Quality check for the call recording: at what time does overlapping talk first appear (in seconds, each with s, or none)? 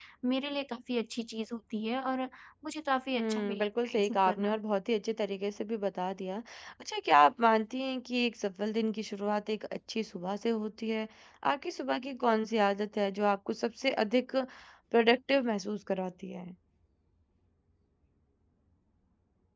3.2 s